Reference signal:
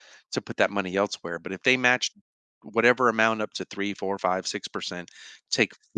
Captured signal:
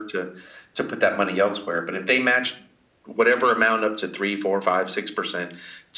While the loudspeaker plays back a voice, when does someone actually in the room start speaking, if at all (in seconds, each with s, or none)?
none